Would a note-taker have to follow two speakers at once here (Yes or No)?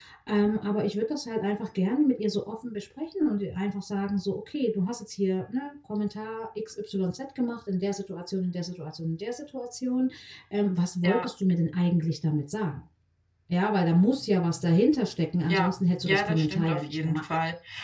Yes